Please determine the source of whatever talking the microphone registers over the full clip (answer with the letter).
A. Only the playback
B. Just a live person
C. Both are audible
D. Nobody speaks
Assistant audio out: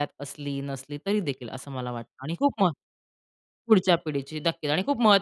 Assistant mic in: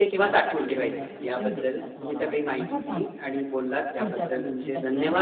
C